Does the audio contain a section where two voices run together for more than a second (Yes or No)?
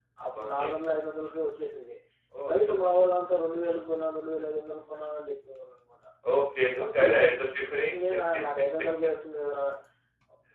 No